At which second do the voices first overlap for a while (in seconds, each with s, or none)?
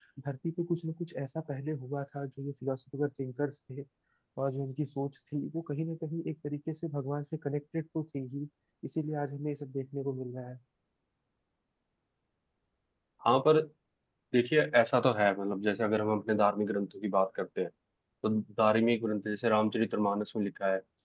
none